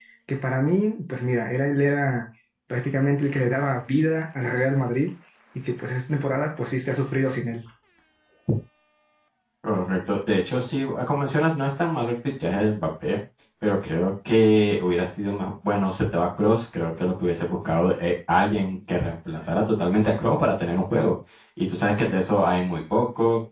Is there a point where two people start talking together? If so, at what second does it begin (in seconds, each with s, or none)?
none